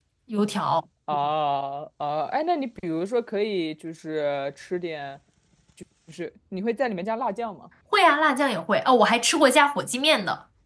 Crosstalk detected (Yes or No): No